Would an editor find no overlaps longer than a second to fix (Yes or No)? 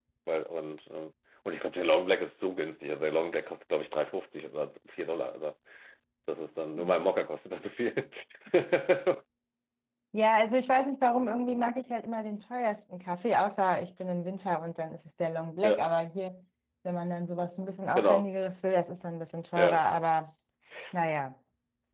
Yes